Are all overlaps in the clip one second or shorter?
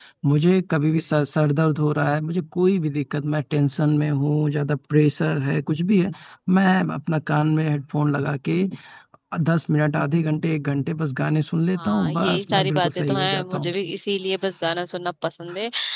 No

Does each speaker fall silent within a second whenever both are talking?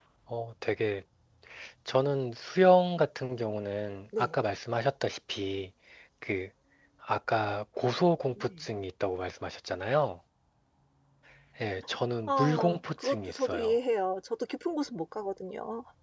No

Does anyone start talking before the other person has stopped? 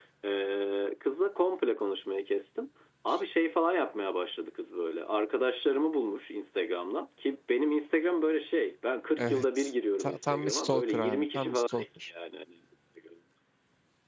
Yes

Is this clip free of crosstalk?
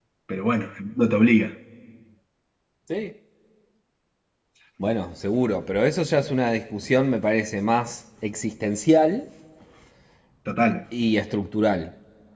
Yes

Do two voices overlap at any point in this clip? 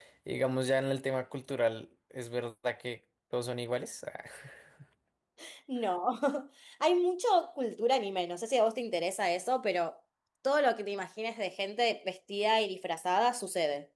No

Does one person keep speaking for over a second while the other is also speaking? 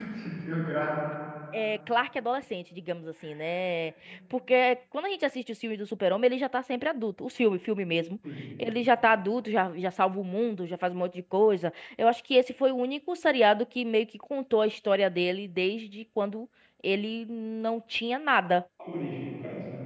No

